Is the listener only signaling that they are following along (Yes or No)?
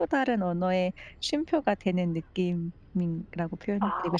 No